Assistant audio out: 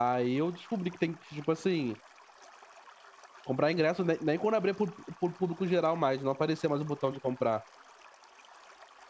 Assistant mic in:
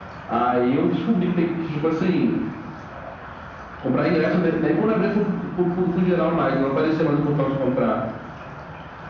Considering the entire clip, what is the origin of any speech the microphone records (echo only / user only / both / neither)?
echo only